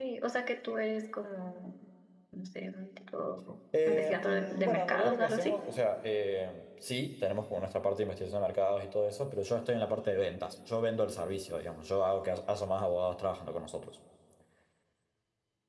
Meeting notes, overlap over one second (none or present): present